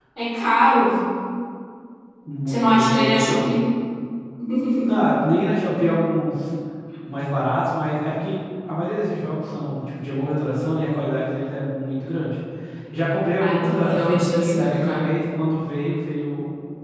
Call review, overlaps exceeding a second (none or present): present